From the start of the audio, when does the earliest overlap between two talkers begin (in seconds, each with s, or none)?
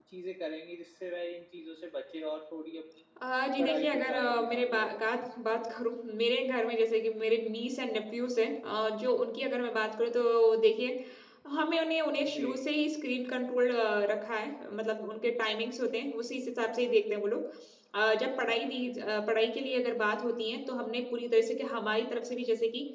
3.6 s